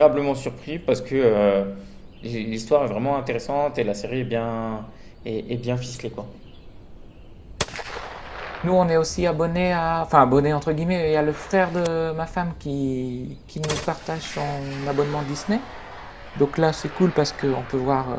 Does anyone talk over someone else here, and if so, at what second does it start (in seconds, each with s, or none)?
none